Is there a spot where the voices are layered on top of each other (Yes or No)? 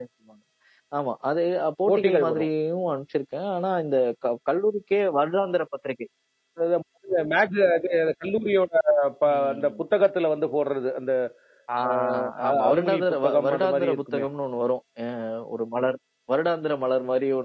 Yes